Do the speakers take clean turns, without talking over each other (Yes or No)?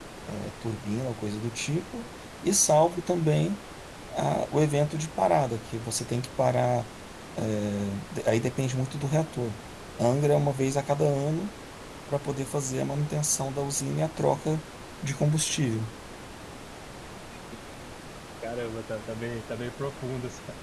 Yes